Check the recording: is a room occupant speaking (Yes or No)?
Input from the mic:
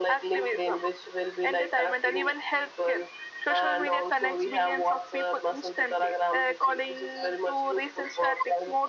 No